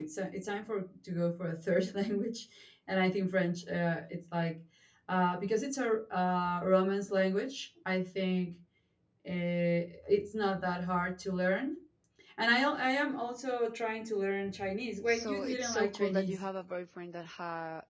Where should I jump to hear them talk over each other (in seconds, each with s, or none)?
15.1 s